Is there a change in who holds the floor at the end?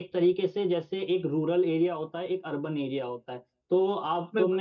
No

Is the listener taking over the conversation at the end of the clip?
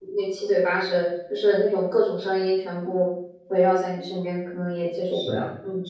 Yes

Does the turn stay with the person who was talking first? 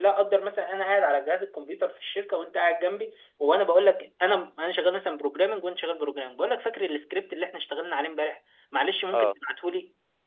Yes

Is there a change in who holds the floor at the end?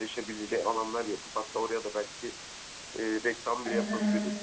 Yes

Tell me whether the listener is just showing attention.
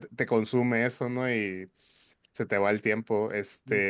Yes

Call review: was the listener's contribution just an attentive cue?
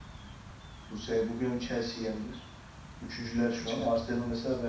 Yes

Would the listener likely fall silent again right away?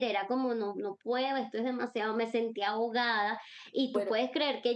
Yes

